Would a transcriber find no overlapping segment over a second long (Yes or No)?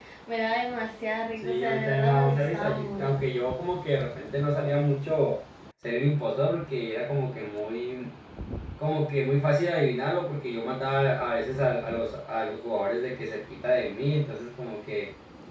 No